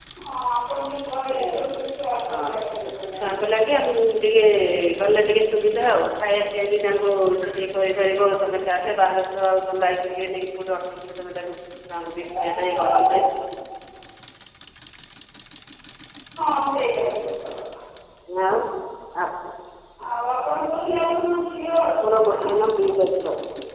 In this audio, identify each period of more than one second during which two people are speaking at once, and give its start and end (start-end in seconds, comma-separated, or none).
none